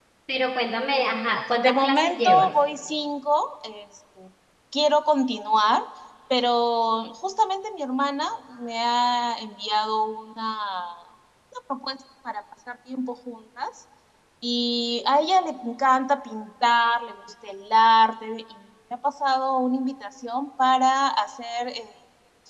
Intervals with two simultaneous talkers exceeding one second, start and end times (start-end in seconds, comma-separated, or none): 0.9-2.5